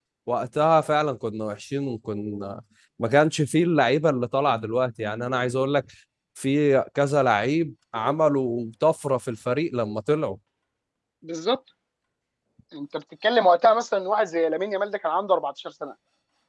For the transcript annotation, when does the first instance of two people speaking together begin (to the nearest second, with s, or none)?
none